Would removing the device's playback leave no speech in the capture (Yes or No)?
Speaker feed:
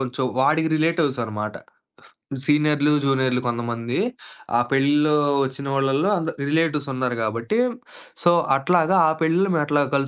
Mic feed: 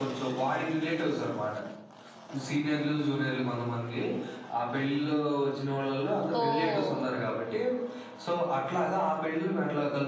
No